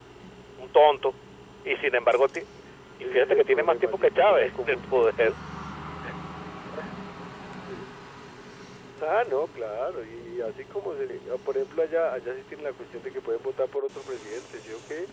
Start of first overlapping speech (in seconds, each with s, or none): 3.0 s